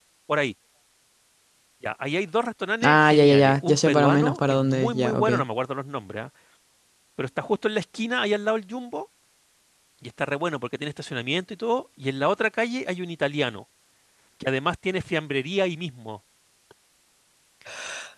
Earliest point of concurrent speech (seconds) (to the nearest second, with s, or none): 3 s